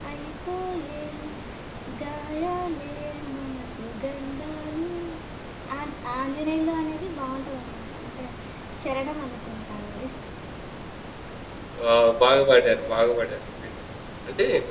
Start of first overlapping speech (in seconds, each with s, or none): none